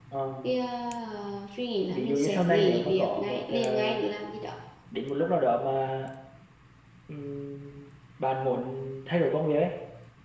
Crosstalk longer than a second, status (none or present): present